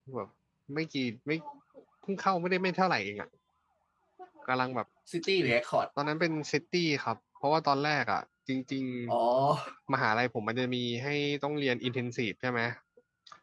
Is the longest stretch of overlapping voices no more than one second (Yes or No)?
Yes